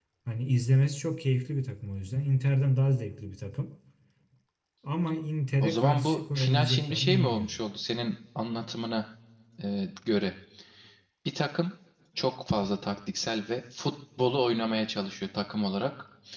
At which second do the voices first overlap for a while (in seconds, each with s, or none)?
5.6 s